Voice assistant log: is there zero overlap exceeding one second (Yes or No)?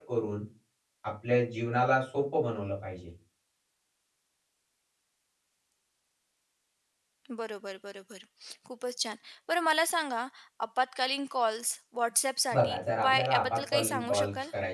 No